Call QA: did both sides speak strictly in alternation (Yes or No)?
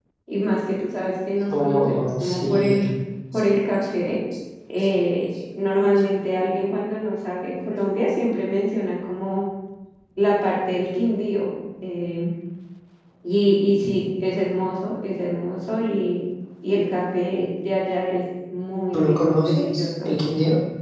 No